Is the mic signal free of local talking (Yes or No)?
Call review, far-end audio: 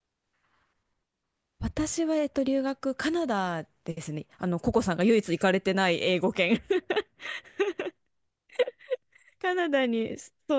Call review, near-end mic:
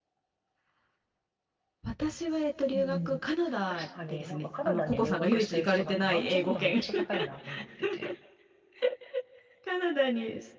No